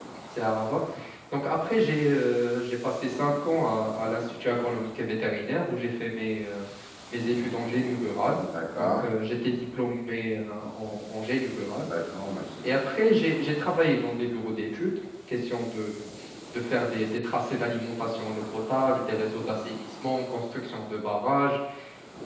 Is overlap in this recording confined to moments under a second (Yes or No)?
Yes